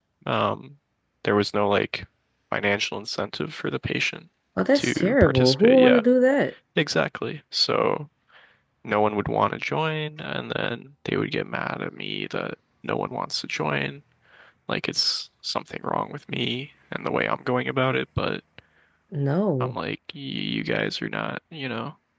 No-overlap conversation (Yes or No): No